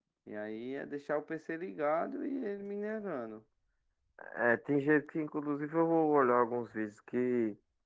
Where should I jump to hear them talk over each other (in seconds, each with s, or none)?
none